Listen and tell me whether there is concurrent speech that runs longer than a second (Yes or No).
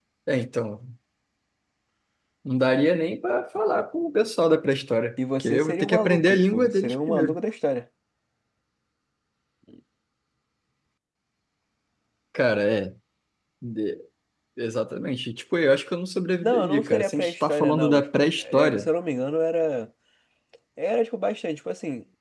Yes